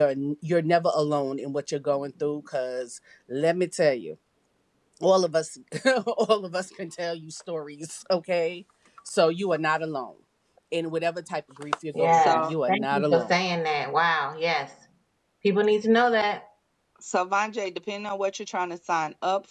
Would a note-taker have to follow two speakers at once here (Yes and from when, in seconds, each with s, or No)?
Yes, from 11.9 s